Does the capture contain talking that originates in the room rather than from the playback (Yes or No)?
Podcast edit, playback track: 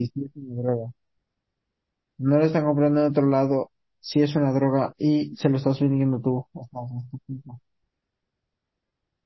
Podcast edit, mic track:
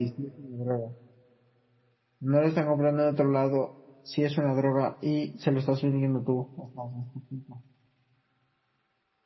No